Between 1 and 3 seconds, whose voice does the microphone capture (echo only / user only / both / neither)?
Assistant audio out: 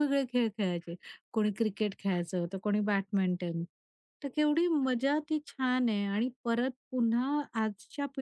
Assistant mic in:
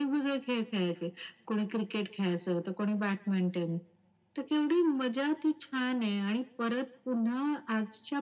echo only